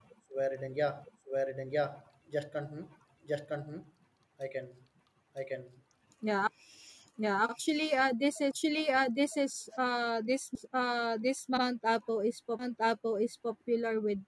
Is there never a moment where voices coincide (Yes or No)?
Yes